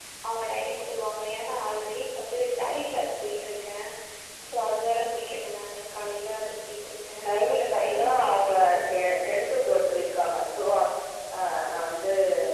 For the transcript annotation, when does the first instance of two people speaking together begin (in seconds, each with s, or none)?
7.2 s